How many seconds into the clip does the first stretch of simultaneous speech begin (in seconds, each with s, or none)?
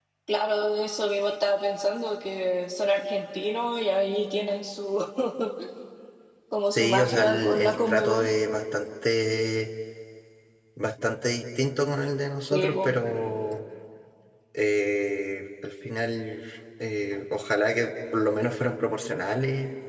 6.7 s